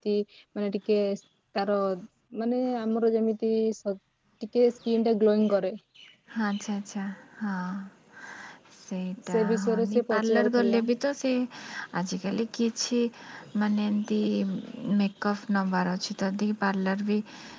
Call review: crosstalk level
present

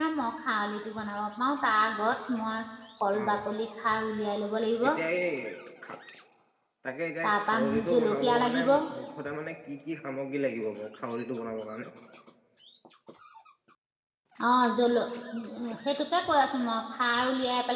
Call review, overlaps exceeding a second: present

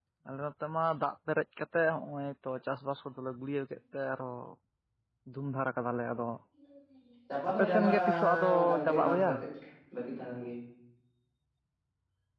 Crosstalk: present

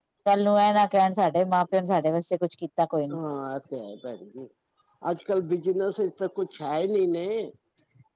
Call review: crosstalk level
none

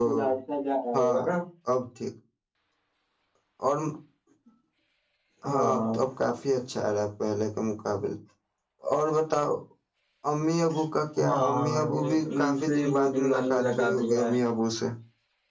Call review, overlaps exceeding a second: present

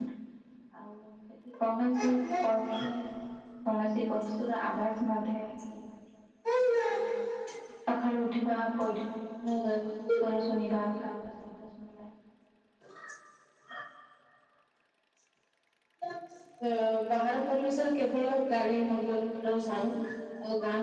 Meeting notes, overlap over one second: none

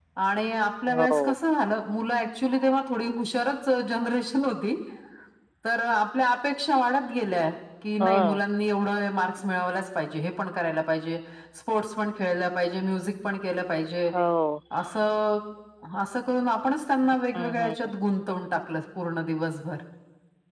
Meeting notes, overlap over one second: none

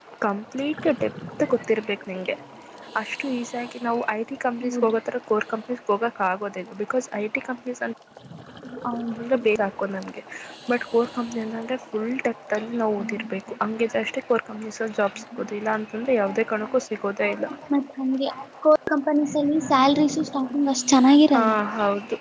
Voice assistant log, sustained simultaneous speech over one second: none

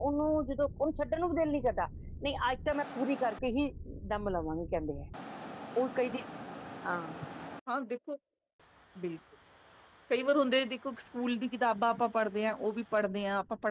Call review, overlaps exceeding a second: none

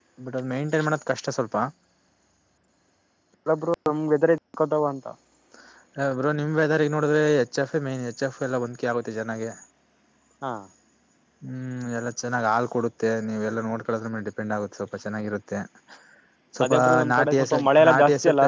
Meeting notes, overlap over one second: present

